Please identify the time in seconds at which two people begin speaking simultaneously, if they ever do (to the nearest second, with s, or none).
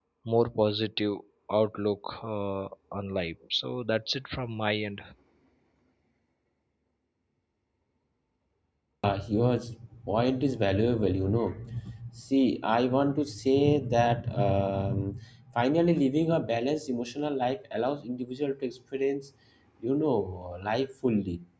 none